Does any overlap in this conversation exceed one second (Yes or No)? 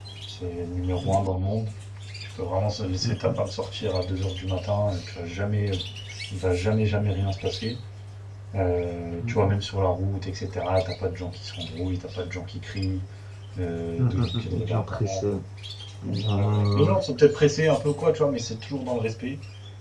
Yes